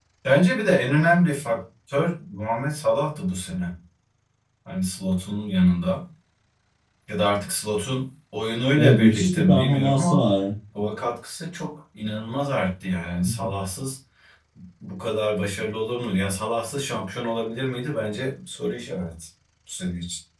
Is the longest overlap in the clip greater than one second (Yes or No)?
Yes